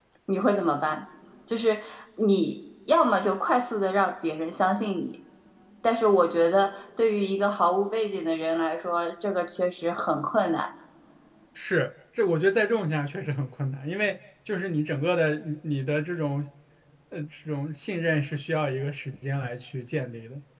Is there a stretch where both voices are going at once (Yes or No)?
No